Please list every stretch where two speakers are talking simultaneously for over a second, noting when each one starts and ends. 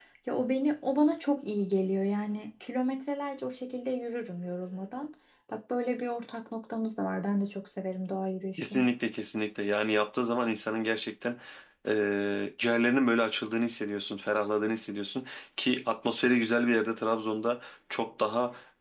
none

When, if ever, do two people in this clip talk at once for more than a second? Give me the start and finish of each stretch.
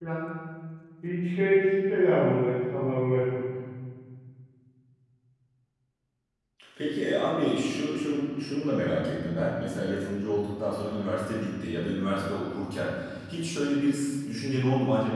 none

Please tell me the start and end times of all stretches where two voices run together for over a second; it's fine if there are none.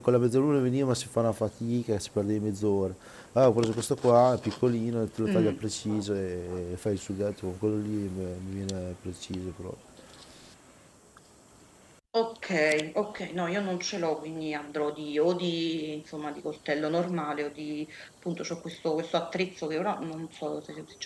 none

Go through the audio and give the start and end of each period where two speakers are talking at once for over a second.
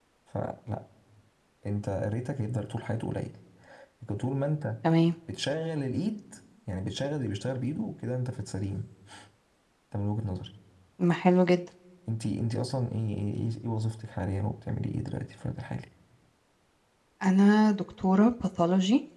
none

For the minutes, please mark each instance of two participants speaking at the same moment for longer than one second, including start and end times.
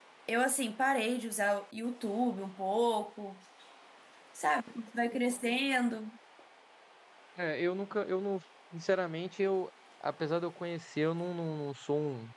none

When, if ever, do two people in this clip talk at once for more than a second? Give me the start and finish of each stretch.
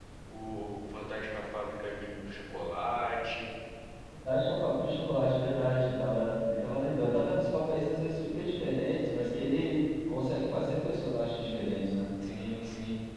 none

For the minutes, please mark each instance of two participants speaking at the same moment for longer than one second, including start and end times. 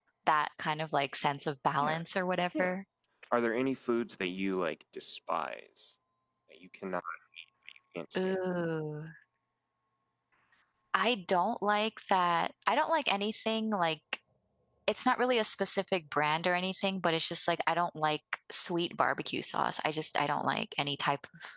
none

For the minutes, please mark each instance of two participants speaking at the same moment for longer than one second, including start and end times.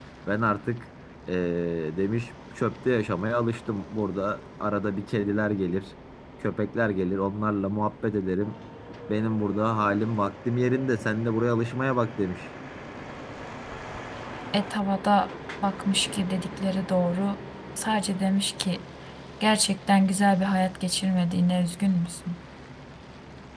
none

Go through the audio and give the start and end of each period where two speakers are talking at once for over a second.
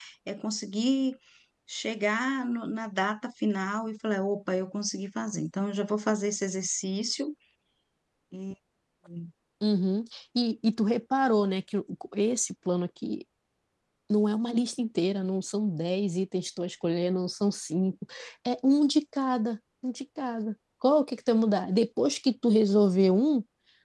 none

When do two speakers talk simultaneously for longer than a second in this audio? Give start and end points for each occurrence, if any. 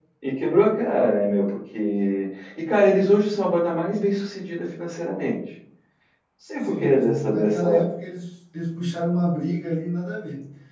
6.6-7.8

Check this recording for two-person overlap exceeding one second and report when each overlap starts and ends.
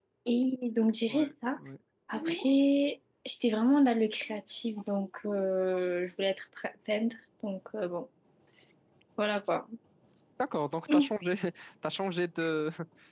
none

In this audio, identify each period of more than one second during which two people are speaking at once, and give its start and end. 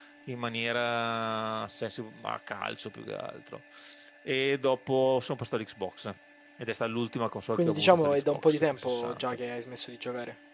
7.5-9.4

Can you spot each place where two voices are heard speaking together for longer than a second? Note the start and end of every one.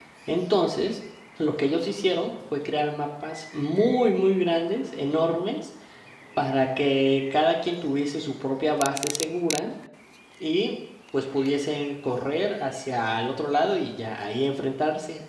none

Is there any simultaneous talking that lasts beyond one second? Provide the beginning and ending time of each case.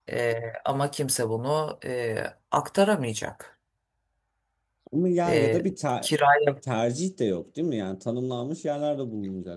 none

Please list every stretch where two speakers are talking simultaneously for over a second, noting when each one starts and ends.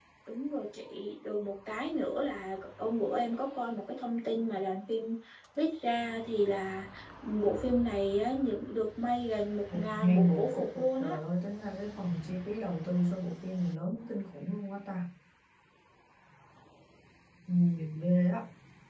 9.7-11.2

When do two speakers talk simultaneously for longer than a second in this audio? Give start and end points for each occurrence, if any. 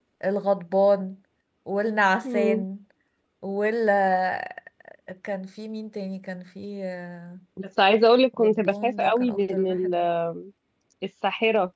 8.4-9.9

